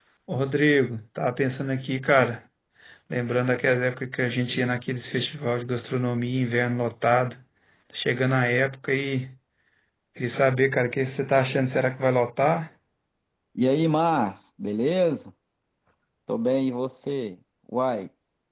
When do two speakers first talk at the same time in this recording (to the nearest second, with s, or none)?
none